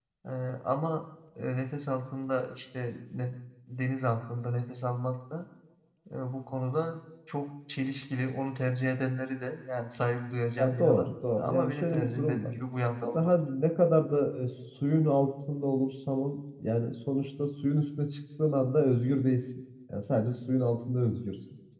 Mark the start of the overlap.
10.6 s

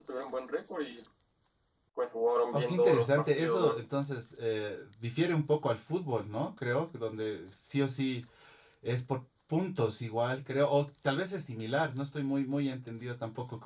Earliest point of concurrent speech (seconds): 2.5 s

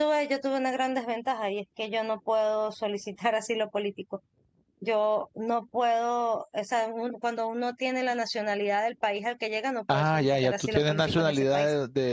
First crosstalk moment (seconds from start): 9.9 s

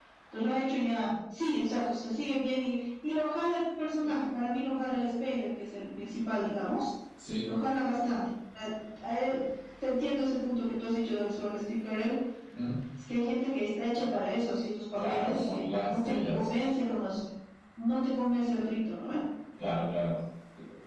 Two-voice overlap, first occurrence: 14.9 s

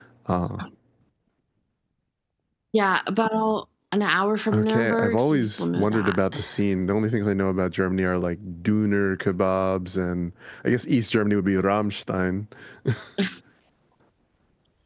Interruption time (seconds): 4.5 s

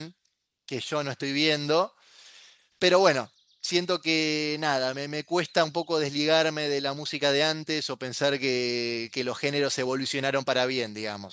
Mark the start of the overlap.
none

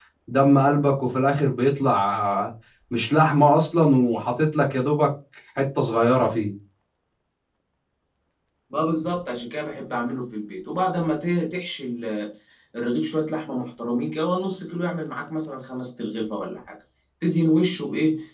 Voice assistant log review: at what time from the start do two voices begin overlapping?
none

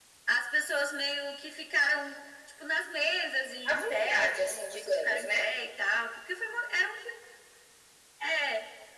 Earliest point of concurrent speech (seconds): 3.6 s

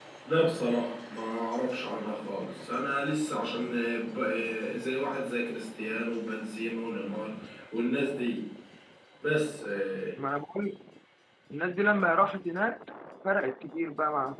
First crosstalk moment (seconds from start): none

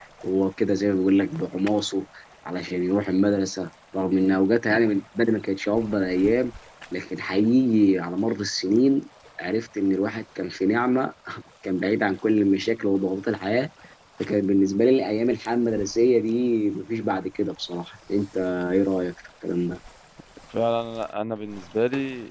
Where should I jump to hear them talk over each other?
none

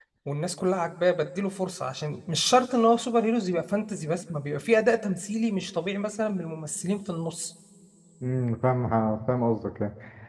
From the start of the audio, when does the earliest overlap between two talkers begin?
none

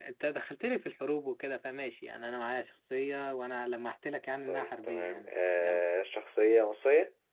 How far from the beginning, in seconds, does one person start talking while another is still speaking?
4.5 s

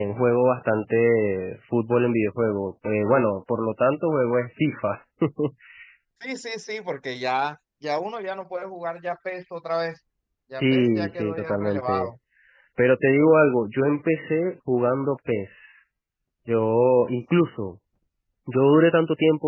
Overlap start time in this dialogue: 10.6 s

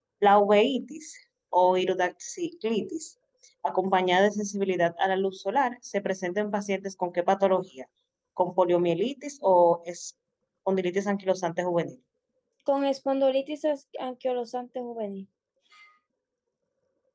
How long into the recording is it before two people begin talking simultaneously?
none

